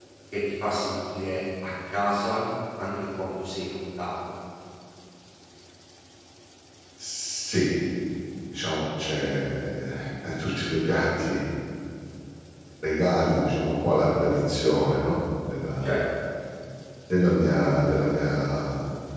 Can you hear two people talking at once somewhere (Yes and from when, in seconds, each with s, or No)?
No